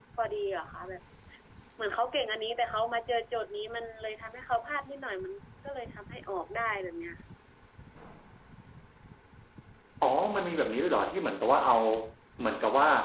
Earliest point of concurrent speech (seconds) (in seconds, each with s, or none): none